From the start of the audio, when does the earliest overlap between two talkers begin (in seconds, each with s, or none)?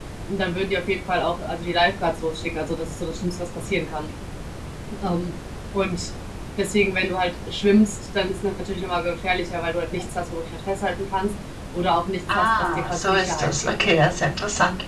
12.3 s